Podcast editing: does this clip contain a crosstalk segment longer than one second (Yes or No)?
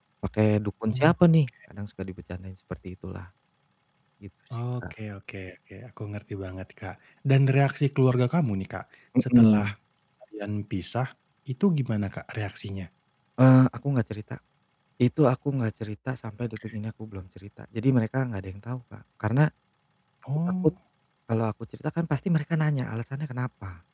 No